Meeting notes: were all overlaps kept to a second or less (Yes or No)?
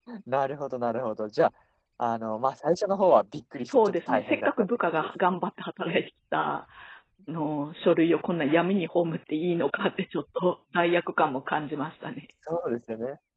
No